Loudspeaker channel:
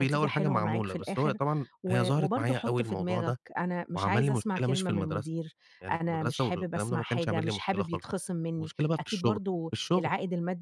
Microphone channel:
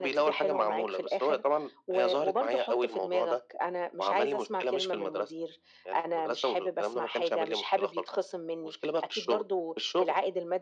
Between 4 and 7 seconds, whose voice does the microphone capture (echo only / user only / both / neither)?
echo only